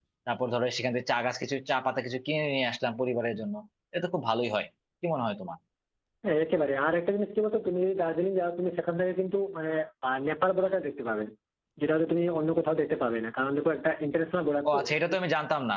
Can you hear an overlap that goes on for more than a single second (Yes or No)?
No